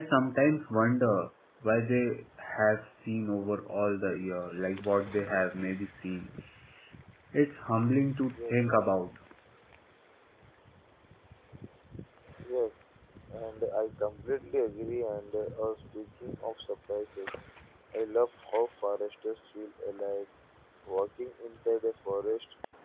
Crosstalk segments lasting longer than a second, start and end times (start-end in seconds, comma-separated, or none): none